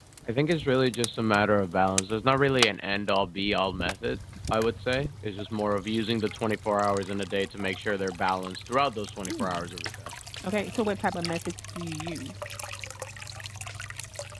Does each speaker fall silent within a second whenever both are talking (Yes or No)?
Yes